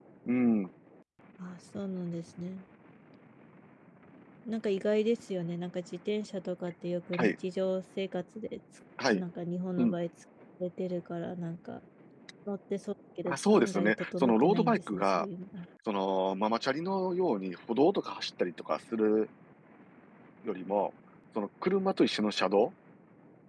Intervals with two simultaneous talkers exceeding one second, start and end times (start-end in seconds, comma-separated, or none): 13.3-15.2